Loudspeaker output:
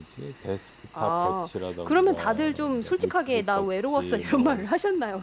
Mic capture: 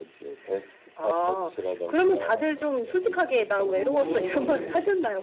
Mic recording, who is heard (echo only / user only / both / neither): both